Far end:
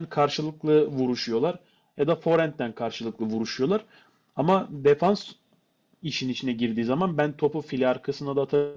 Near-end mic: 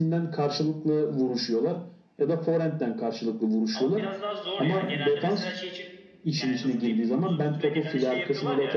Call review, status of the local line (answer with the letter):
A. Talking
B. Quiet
A